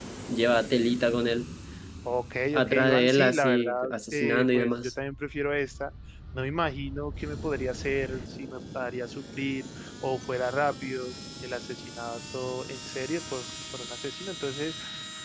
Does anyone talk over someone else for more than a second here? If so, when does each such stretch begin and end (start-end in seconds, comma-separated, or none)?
2.5-4.9